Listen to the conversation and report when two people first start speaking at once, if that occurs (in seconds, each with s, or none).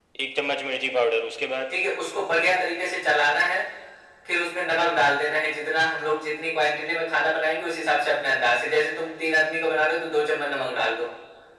none